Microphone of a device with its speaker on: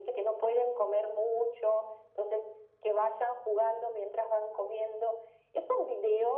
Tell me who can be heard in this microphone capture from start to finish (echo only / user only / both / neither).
echo only